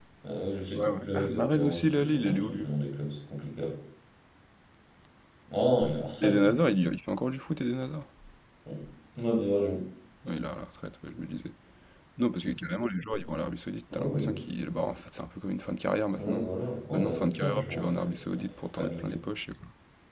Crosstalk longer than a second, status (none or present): present